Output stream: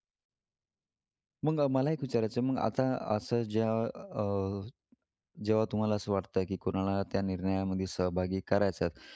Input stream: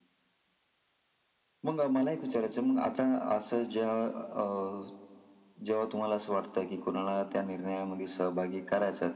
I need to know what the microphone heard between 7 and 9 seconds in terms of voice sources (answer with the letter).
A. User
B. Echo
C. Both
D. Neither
B